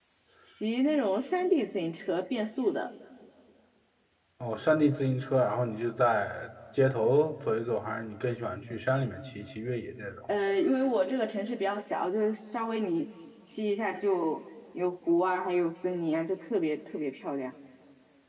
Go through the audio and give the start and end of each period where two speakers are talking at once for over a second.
none

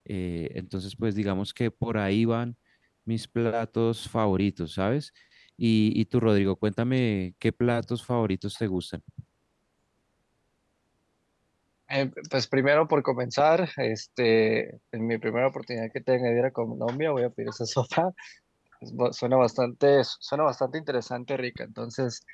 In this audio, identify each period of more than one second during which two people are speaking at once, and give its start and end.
none

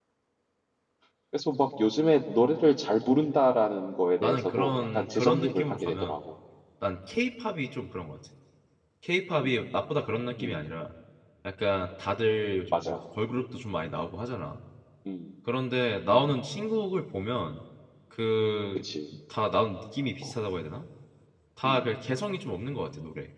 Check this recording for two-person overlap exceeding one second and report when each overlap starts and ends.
4.2-6.2

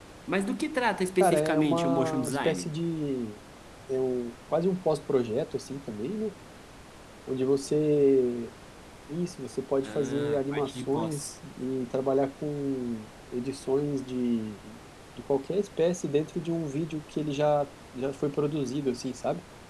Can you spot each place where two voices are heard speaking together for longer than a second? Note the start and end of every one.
1.2-2.7, 9.8-11.3

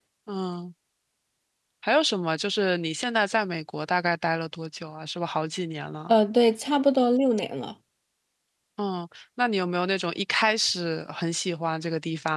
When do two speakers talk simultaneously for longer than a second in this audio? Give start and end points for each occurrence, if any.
none

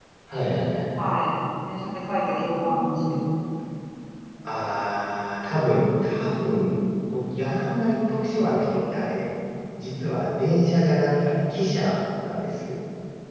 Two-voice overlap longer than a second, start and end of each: none

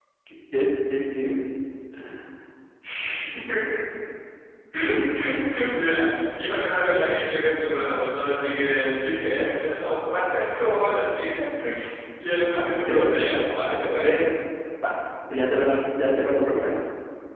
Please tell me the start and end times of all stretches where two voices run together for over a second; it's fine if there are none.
12.4-14.2

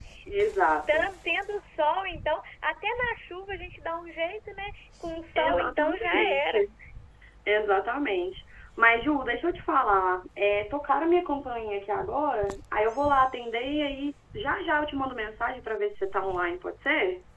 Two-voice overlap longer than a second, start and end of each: 5.4-6.6

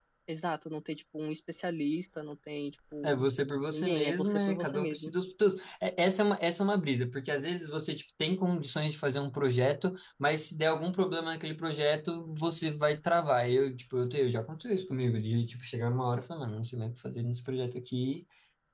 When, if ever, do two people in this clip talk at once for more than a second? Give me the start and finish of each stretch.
3.7-5.1

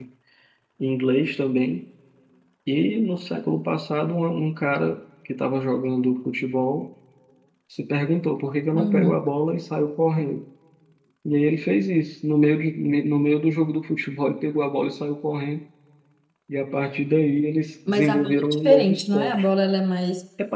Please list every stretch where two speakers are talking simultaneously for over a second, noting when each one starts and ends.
17.9-19.5

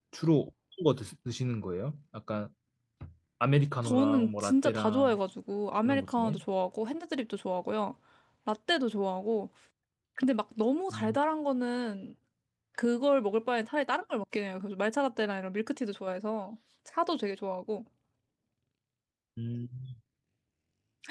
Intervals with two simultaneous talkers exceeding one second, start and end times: 3.9-5.2

